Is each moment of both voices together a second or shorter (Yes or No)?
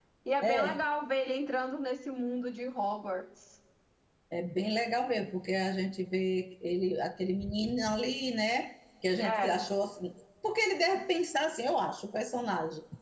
Yes